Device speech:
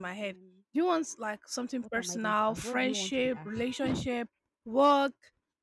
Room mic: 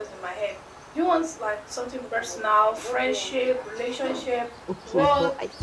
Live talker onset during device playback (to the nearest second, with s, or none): 5 s